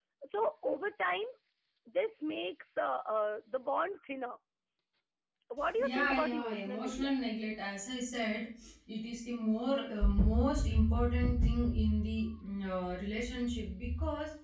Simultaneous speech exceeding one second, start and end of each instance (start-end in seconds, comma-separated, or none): 5.9-7.1